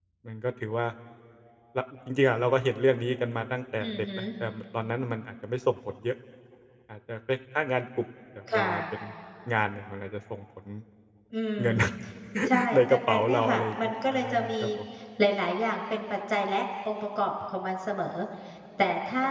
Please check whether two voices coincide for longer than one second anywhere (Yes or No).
Yes